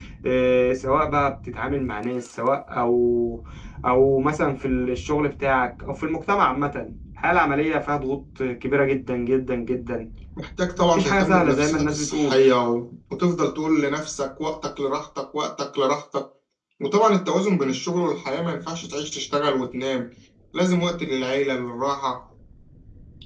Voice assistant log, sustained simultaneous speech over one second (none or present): present